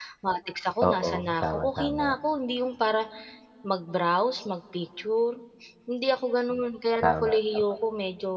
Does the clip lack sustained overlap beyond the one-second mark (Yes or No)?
No